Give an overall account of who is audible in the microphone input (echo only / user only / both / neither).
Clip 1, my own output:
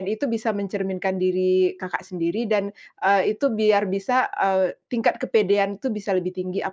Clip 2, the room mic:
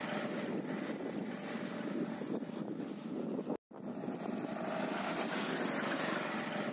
neither